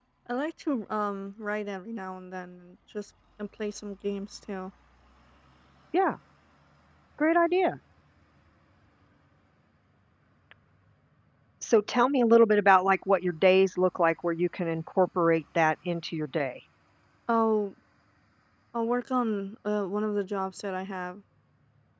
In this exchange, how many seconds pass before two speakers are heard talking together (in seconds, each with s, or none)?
none